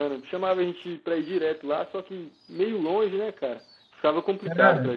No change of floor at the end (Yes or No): No